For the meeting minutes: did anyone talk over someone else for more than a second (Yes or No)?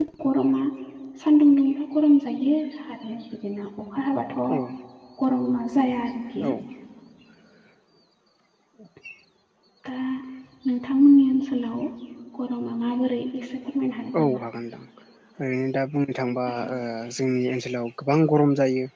No